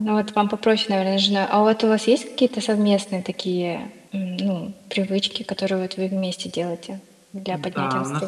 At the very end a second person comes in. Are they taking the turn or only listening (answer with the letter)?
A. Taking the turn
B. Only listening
A